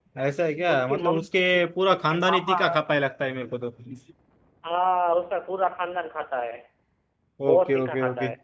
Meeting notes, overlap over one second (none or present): present